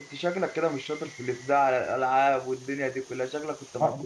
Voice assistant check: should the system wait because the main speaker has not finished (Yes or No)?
No